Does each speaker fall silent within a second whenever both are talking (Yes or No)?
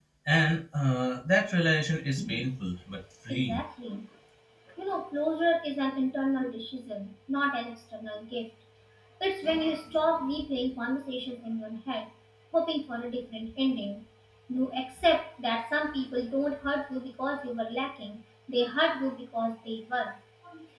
Yes